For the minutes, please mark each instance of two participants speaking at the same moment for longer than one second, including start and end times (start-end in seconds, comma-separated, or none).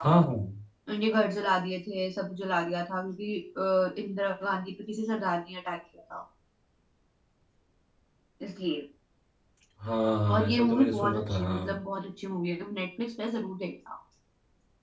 10.3-11.8